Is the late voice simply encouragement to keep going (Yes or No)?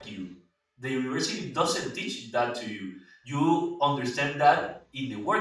Yes